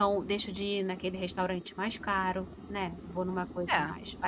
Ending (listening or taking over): listening